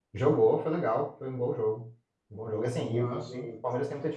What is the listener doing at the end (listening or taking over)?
listening